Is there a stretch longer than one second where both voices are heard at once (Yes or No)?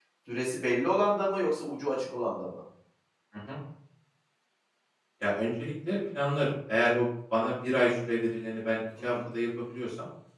No